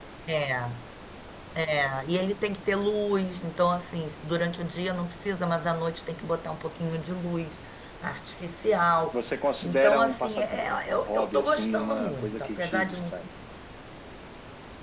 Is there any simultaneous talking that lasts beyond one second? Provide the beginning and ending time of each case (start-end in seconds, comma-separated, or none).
9.6-13.1